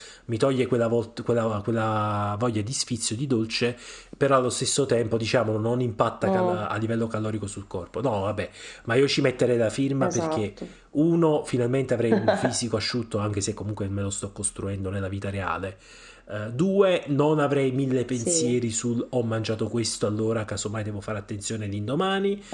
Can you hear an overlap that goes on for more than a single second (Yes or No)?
No